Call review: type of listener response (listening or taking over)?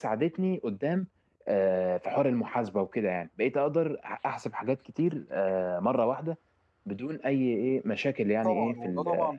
taking over